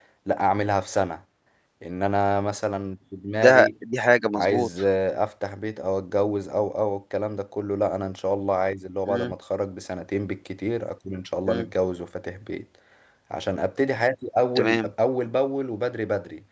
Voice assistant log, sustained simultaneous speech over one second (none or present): none